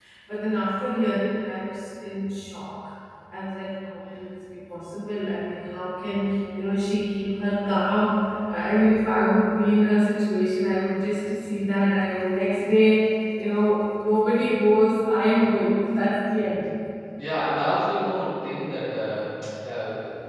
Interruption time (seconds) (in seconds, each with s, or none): none